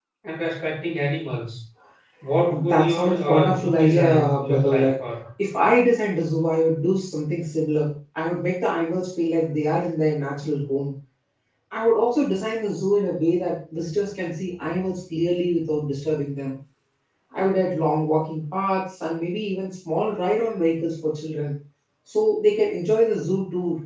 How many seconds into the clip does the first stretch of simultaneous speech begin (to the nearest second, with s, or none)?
3 s